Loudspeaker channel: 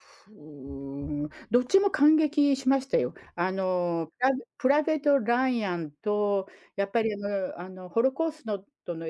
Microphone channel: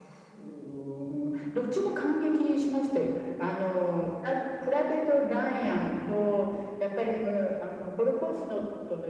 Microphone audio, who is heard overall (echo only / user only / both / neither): echo only